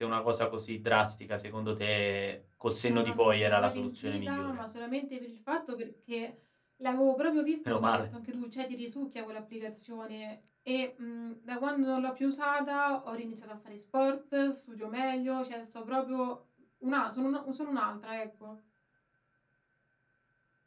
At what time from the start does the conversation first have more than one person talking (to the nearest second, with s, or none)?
3 s